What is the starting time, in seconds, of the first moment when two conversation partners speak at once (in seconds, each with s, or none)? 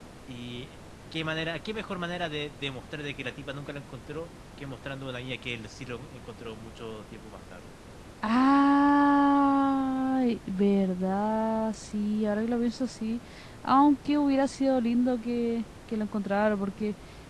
none